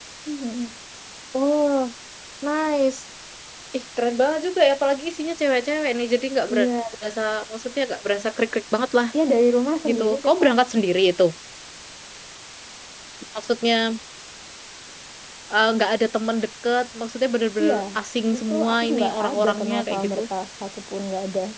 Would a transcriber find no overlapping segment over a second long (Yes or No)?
No